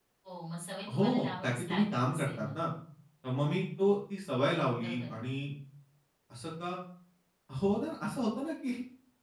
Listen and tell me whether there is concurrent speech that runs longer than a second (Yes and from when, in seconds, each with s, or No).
Yes, from 0.9 s